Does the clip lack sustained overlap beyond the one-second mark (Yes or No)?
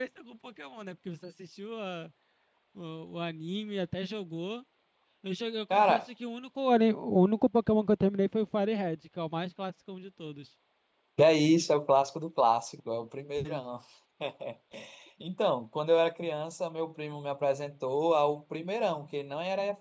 Yes